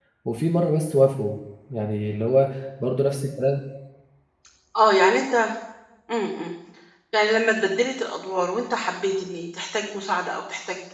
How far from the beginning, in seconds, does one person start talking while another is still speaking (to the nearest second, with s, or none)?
none